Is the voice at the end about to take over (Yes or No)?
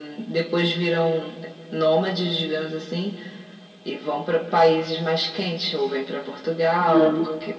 No